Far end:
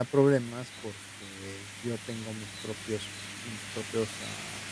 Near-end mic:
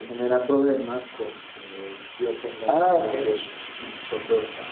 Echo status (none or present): present